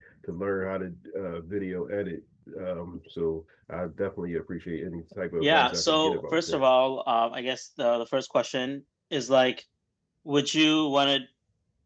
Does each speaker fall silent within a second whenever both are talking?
No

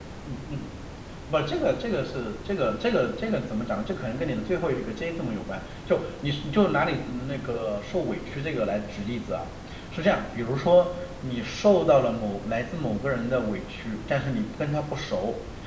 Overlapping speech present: No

